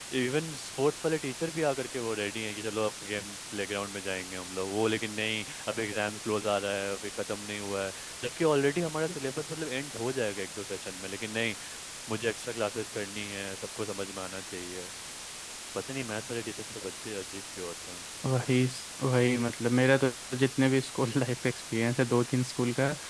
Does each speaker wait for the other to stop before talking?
Yes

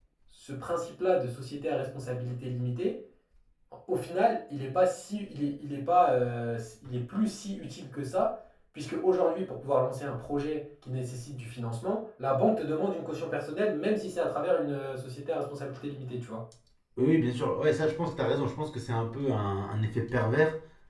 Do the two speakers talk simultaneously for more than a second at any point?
No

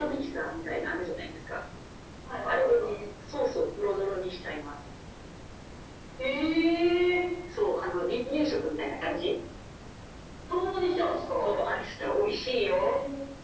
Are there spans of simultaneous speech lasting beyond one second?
No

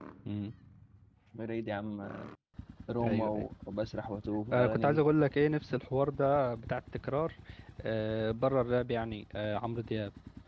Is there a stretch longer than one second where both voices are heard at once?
No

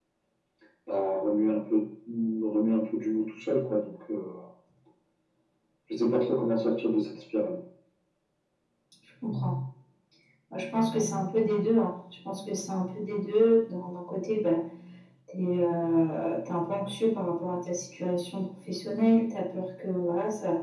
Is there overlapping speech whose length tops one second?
No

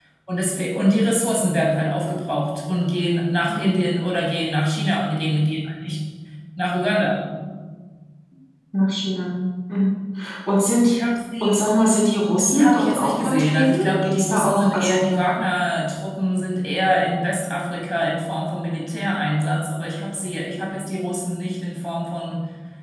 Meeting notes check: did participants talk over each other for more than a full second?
Yes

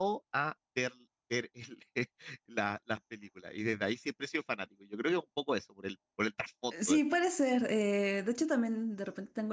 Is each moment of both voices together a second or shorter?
Yes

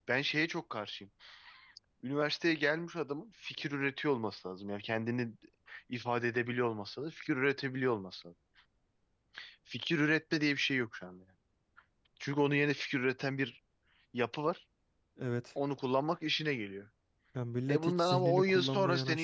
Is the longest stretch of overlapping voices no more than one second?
No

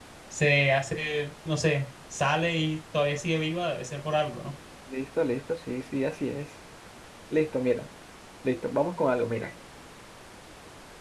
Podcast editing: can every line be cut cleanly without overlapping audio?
Yes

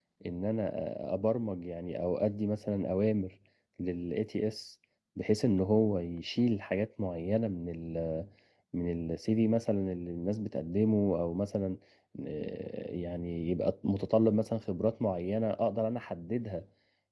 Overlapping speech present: No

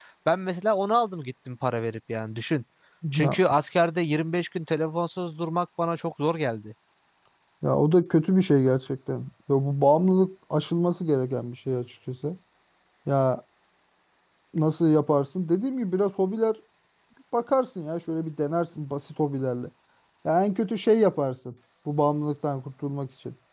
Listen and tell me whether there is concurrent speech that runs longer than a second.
No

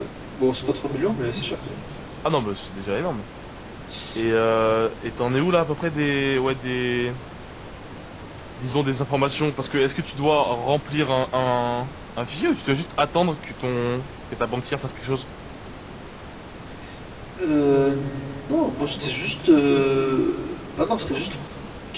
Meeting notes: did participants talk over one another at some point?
No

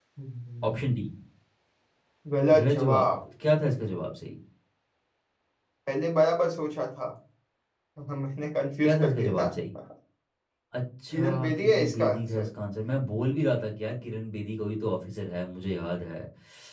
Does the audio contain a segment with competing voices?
Yes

